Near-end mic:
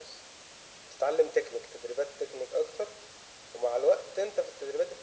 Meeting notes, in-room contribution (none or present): none